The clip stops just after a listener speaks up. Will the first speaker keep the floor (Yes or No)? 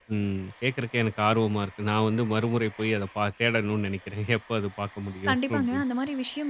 No